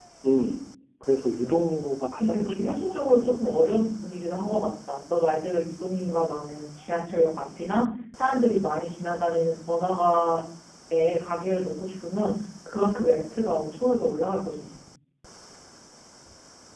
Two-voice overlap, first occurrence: 2 s

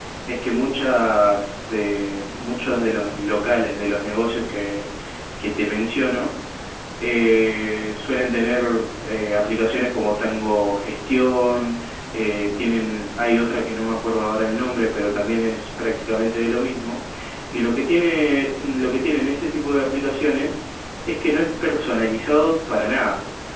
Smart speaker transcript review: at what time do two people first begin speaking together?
none

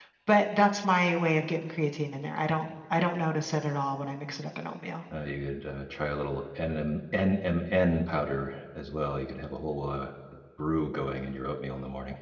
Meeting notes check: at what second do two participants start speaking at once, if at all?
none

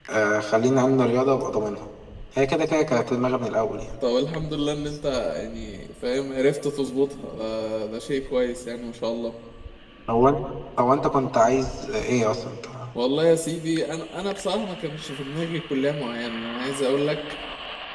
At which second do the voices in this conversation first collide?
none

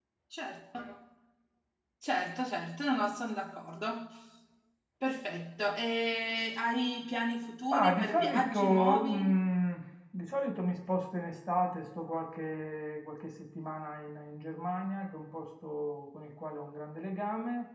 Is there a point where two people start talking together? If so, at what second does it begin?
8 s

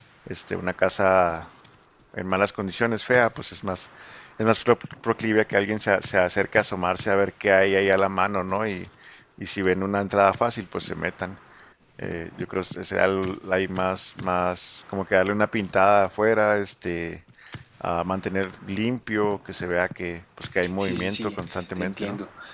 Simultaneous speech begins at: 21 s

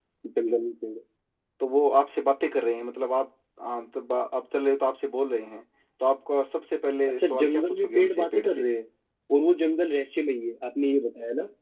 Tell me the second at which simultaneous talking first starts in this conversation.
7 s

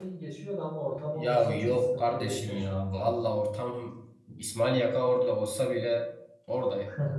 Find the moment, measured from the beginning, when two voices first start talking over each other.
1 s

